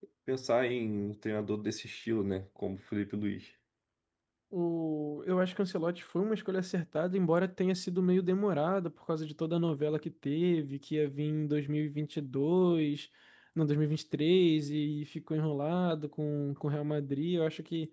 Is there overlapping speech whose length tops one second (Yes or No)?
No